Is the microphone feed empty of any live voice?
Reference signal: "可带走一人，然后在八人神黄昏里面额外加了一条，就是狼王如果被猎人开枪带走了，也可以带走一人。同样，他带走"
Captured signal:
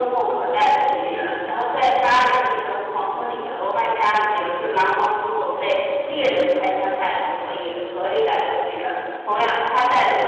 Yes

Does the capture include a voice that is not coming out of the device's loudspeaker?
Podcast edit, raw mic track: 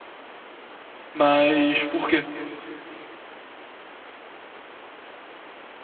Yes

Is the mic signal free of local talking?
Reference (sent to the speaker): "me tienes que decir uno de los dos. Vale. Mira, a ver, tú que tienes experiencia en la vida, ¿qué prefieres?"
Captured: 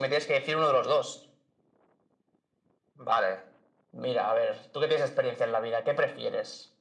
Yes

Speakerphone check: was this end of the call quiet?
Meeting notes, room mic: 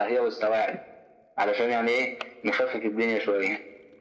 Yes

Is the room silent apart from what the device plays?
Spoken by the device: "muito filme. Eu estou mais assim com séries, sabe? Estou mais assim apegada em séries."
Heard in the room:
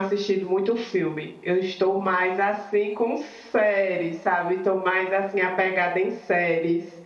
Yes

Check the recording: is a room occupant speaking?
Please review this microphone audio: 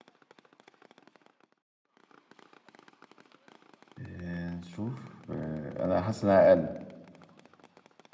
Yes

